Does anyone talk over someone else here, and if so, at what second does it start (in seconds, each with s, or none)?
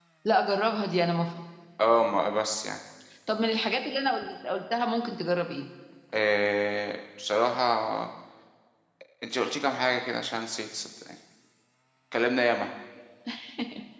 none